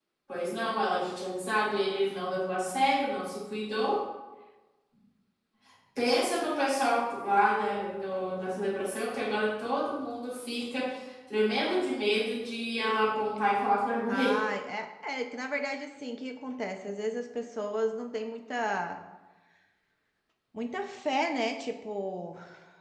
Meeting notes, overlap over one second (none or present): none